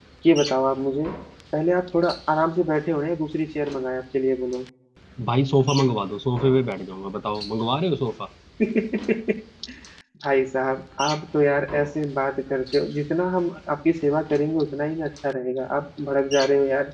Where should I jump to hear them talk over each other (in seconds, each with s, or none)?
none